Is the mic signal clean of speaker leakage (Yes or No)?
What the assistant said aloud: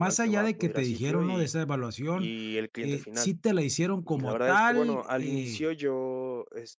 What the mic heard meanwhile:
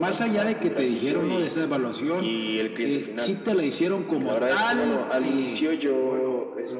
No